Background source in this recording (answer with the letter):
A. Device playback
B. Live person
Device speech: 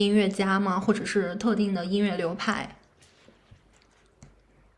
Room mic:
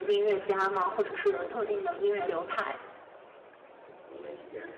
B